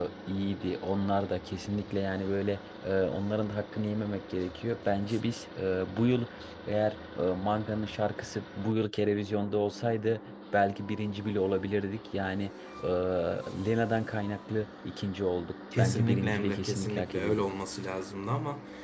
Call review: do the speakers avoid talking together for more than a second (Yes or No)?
No